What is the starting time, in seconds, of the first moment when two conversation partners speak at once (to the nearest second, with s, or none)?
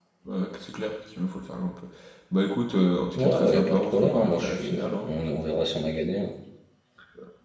3 s